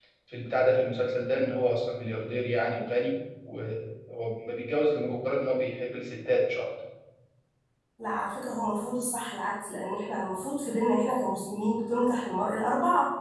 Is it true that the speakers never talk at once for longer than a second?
Yes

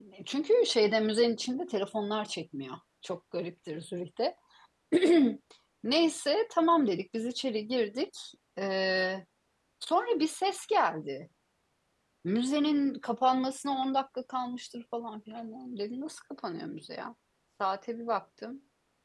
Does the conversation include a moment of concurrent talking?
No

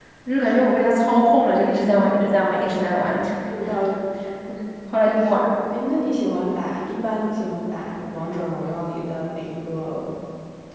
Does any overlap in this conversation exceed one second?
No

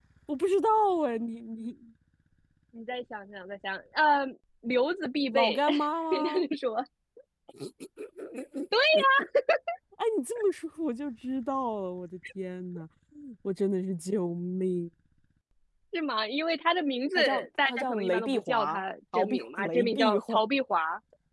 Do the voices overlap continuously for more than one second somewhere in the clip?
Yes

